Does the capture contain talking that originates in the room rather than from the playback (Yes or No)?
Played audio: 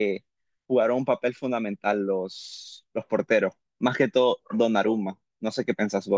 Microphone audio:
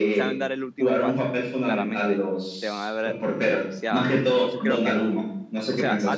Yes